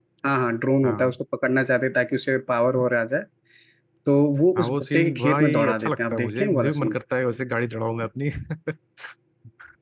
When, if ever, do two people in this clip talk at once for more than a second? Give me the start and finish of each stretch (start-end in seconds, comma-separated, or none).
4.6-7.0